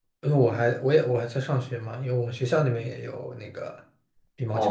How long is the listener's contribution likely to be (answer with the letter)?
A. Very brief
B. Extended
B